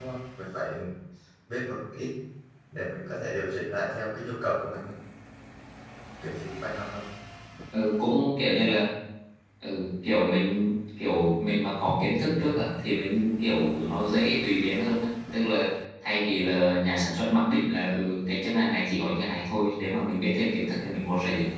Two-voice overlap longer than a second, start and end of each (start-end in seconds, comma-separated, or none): none